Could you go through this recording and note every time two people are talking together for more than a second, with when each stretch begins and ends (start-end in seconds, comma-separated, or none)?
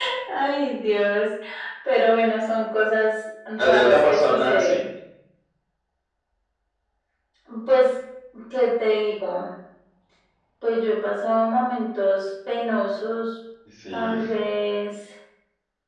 3.6-4.8